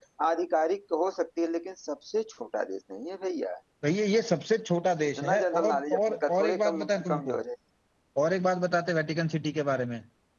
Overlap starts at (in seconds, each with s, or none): 5.2 s